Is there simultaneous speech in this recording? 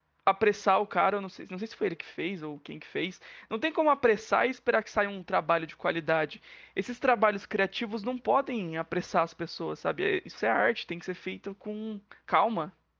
No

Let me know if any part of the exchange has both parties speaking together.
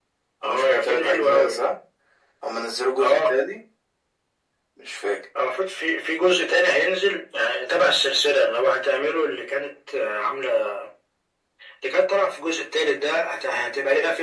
Yes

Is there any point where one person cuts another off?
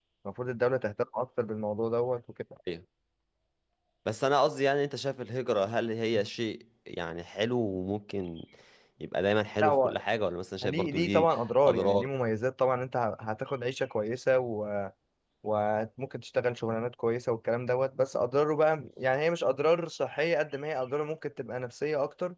Yes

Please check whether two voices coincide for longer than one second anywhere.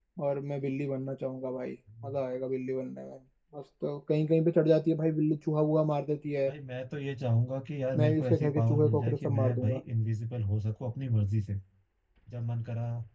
Yes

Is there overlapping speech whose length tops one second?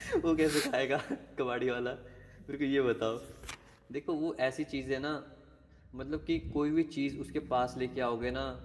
No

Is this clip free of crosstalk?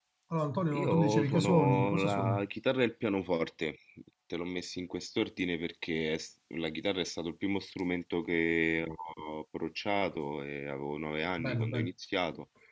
No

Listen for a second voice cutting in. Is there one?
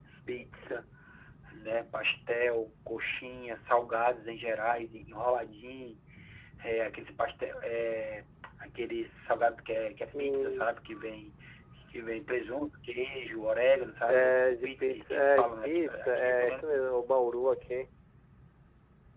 Yes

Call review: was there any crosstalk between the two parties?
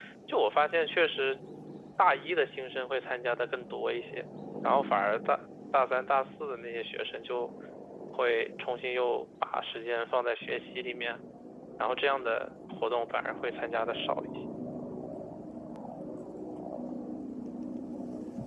No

